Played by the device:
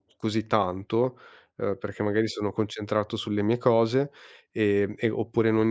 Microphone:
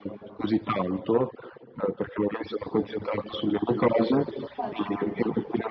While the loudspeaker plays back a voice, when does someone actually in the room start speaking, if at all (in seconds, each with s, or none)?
4.6 s